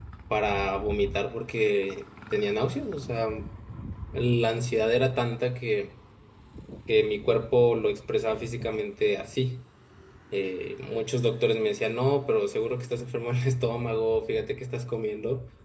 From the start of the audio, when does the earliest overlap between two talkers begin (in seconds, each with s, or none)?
none